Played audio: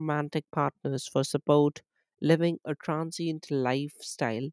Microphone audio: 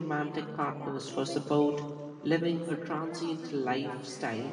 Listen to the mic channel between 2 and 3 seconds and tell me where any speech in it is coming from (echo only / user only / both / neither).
both